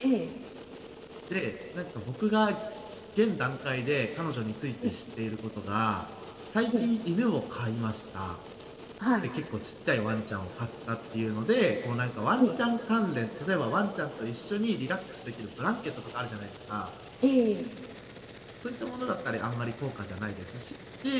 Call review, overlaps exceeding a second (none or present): none